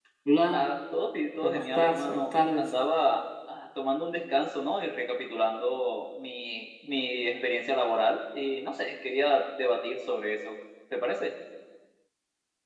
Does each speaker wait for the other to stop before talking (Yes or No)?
No